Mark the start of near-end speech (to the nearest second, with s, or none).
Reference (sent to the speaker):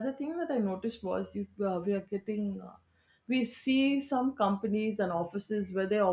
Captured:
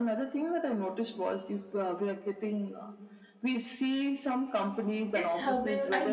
5 s